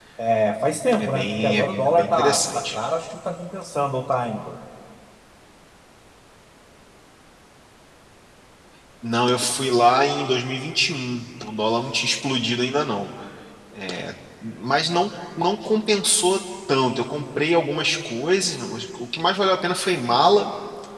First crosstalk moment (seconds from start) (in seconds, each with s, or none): 1.0 s